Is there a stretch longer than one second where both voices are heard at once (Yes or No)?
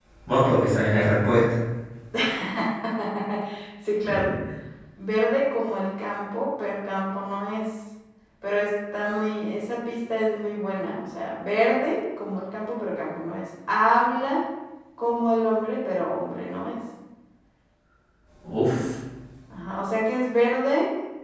No